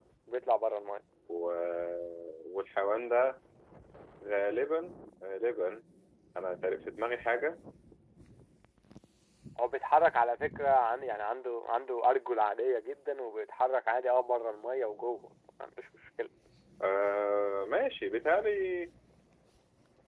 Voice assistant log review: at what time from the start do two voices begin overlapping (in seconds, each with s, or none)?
none